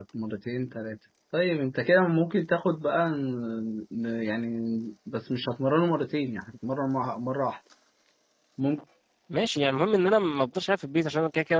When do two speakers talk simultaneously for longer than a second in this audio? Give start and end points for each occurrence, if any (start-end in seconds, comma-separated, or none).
none